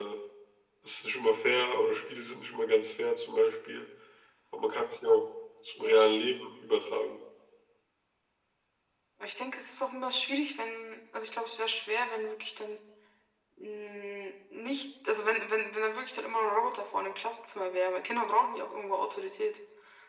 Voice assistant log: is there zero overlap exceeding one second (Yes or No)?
Yes